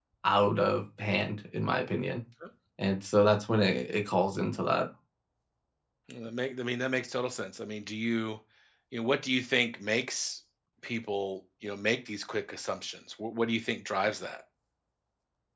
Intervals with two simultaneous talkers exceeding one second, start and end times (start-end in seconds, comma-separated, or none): none